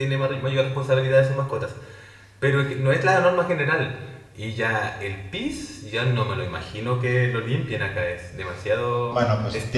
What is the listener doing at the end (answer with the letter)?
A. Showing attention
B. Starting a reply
B